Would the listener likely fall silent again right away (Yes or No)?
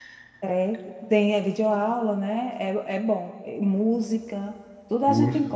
Yes